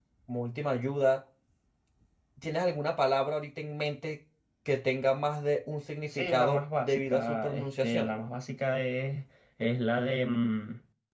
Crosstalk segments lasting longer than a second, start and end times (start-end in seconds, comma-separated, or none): 6.1-8.1